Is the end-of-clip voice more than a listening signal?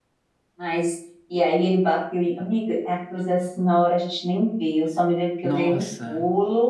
No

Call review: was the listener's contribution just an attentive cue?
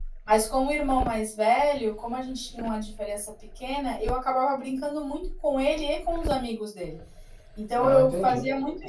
Yes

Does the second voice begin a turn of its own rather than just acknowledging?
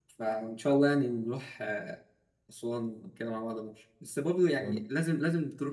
No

